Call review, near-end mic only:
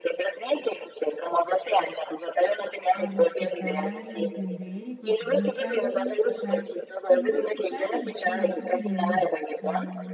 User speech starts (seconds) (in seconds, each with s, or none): 2.9 s